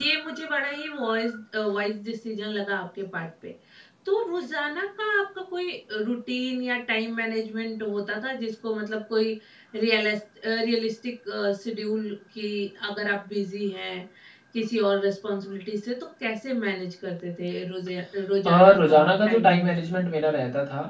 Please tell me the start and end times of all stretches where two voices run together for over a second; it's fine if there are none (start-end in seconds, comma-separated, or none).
18.4-20.0